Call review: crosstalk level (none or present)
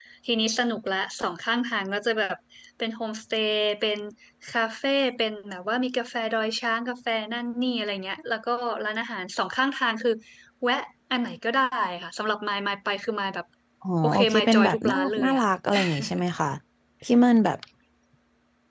present